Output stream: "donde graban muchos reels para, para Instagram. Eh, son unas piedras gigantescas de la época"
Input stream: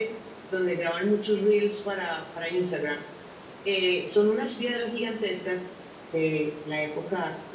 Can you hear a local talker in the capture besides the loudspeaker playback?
No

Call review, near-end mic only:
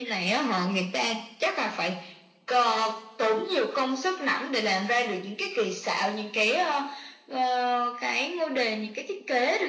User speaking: No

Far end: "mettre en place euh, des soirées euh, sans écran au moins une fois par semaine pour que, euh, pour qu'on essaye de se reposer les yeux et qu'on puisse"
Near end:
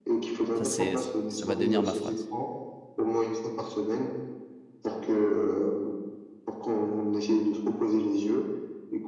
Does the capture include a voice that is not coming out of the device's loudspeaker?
Yes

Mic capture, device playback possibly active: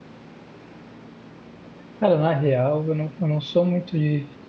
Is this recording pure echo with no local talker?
No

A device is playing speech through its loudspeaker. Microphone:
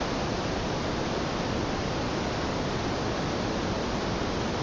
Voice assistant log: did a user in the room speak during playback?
No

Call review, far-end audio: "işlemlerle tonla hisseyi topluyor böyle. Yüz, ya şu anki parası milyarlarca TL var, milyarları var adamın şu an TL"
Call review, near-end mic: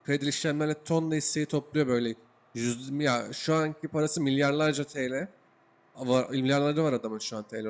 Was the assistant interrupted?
No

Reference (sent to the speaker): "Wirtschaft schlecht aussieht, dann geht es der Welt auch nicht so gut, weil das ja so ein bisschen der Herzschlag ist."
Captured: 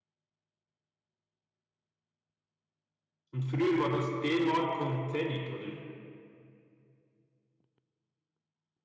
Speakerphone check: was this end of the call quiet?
No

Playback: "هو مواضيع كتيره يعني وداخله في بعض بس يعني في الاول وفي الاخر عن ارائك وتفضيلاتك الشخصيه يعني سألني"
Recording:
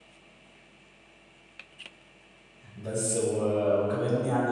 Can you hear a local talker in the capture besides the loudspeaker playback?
Yes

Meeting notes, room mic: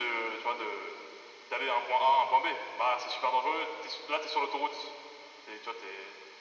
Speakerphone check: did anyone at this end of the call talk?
No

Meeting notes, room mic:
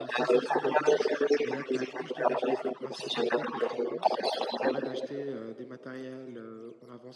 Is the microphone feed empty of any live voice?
No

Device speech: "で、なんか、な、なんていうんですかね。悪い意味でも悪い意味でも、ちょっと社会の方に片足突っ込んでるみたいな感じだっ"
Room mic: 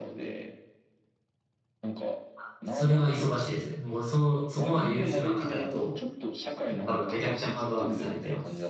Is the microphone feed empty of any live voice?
No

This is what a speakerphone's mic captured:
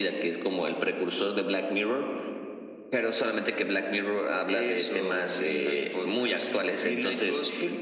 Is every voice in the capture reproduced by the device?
Yes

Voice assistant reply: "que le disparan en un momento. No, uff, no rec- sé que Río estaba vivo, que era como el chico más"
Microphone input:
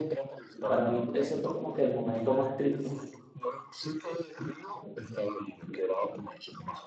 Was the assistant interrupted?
Yes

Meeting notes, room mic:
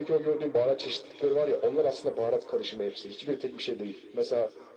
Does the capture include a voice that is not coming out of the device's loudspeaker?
No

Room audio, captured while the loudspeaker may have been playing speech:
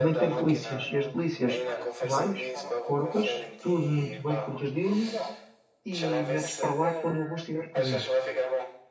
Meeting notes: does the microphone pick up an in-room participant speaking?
Yes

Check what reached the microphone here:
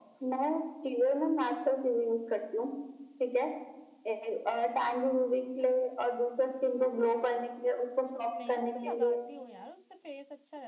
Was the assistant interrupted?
Yes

